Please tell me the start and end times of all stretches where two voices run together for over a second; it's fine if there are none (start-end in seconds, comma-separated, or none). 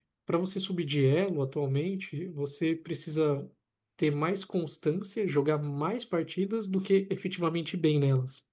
none